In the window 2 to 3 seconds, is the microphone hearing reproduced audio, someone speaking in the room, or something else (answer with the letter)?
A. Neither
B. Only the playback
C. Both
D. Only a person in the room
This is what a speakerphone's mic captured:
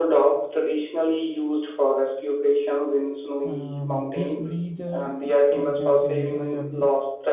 B